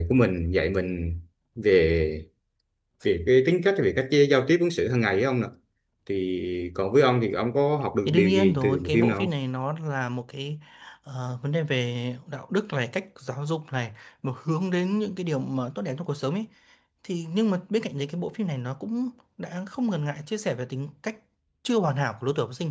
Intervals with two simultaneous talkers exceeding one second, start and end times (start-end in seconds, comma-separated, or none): 8.1-9.3